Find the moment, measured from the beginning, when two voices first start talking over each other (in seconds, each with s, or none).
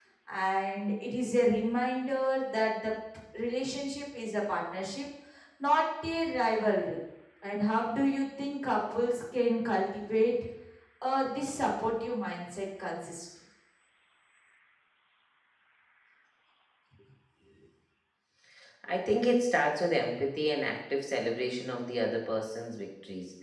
none